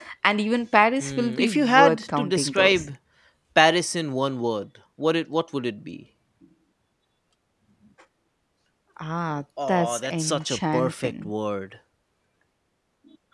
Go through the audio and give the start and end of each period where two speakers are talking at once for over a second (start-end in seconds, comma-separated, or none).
1.0-2.9, 9.7-11.3